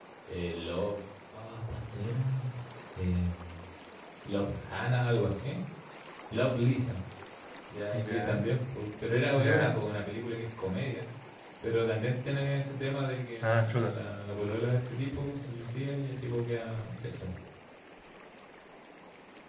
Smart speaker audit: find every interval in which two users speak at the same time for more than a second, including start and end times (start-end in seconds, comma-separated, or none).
none